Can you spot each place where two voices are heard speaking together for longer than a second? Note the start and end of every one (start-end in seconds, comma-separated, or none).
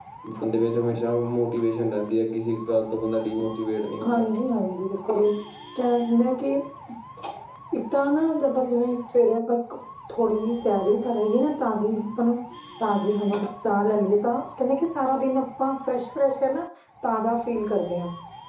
none